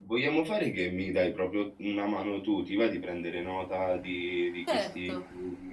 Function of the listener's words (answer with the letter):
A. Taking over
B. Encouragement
A